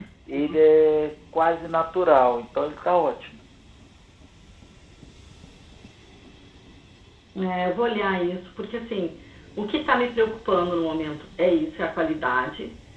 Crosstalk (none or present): none